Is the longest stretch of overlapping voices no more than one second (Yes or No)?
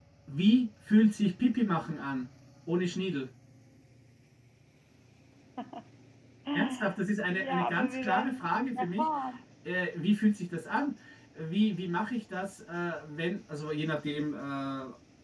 No